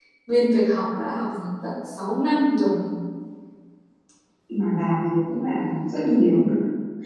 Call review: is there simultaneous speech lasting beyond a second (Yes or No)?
No